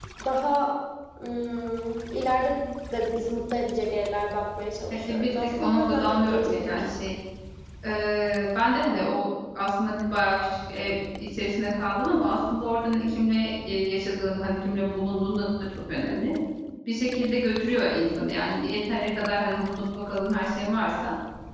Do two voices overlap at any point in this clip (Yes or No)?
Yes